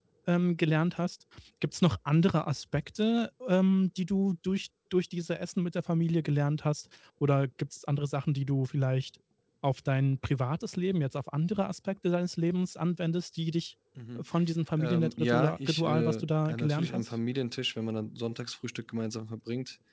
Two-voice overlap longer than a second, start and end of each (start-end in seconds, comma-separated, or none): 14.8-17.1